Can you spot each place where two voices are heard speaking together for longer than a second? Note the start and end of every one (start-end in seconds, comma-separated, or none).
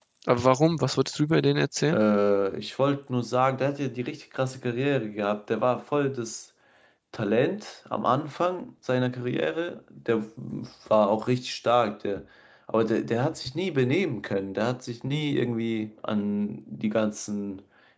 none